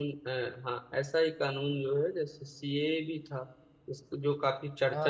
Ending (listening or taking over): listening